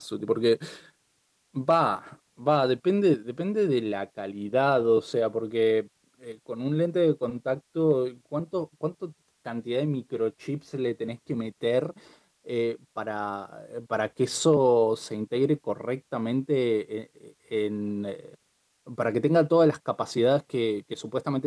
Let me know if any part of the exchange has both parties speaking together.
No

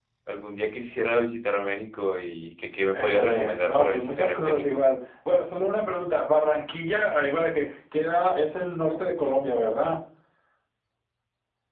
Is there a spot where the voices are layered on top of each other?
Yes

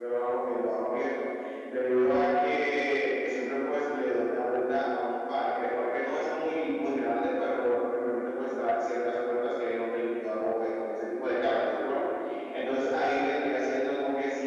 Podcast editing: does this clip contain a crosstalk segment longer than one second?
No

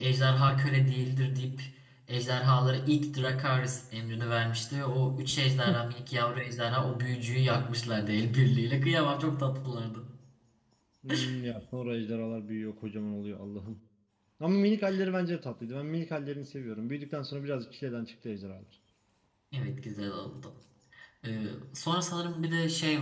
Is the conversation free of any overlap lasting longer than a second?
Yes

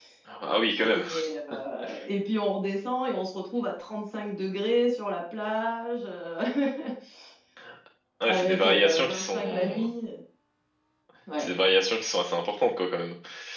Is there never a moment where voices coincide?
No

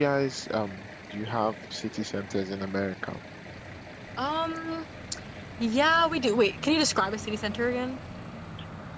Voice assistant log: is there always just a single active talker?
Yes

